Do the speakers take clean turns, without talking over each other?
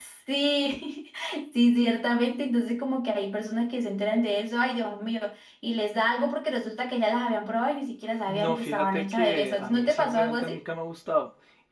No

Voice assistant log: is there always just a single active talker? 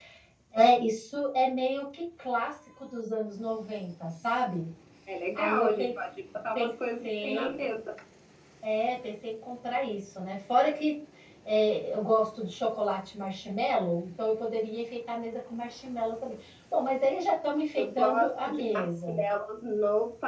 No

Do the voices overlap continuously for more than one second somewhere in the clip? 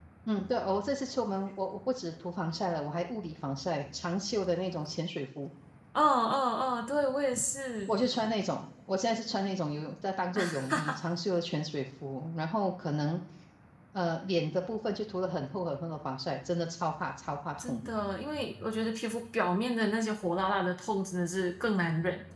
No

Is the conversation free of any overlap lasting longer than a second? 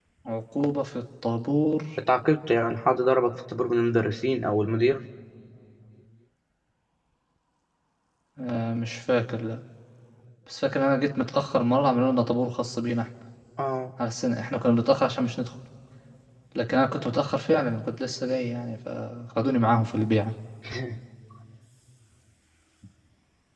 Yes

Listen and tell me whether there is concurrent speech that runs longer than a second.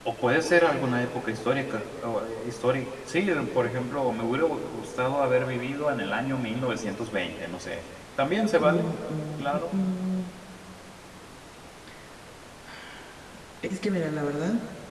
No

